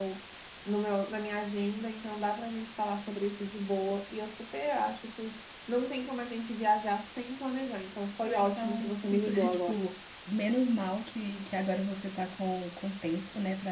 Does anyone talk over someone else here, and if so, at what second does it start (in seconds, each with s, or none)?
8.2 s